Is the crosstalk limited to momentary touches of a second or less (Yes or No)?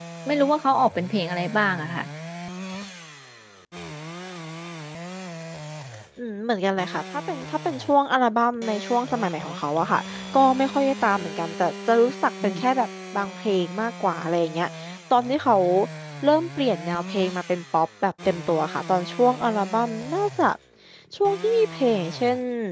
Yes